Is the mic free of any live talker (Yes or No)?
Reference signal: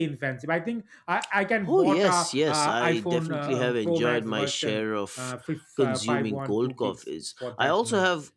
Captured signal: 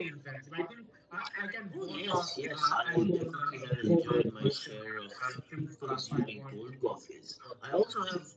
Yes